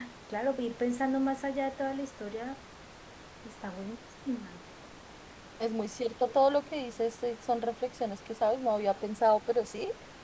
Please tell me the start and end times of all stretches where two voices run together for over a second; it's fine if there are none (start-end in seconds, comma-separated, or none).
none